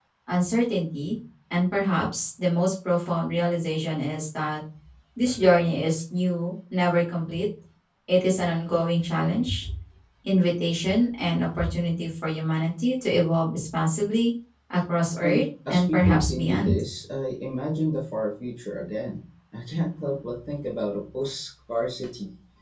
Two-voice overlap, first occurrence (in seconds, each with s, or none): 15.2 s